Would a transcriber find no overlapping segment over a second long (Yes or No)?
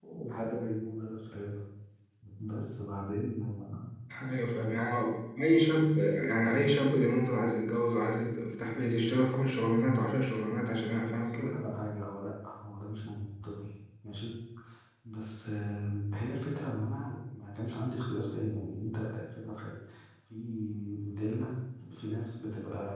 Yes